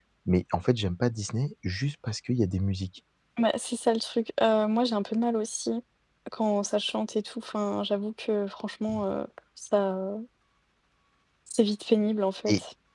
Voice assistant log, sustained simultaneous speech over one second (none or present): none